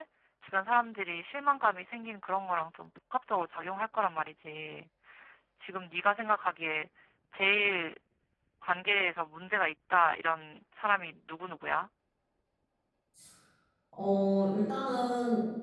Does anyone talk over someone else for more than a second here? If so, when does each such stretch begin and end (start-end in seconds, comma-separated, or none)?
none